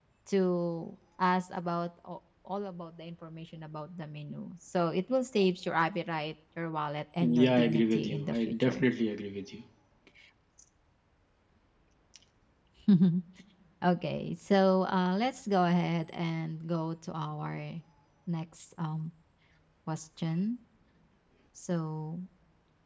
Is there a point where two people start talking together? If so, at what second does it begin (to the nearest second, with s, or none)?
7 s